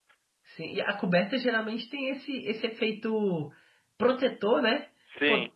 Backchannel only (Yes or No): Yes